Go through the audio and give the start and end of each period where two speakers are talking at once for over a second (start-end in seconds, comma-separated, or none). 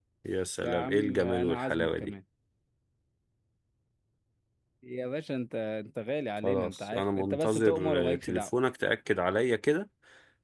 0.6-2.1, 6.4-8.5